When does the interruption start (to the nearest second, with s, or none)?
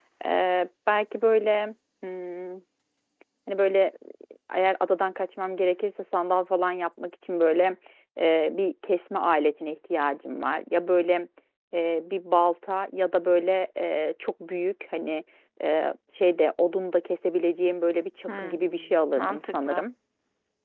18 s